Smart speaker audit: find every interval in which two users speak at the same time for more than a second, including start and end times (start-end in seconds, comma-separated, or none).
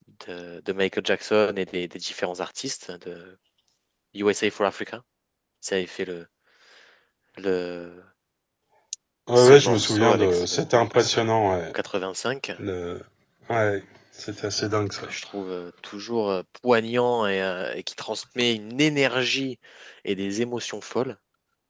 9.3-10.6